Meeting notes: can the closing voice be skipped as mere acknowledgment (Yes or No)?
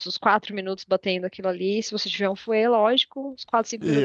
No